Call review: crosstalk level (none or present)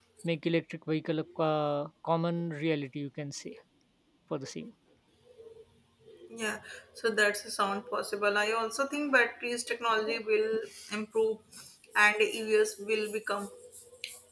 none